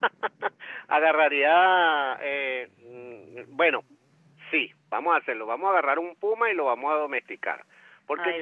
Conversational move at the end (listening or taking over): listening